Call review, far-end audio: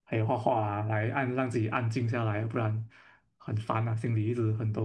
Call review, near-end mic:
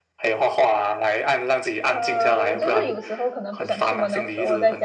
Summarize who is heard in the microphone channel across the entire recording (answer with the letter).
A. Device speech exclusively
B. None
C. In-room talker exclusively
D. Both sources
D